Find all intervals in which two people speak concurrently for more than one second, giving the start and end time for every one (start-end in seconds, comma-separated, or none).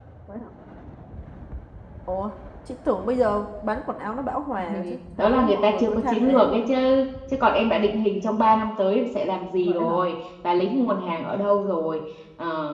5.2-6.7